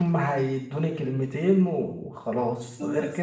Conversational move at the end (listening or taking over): listening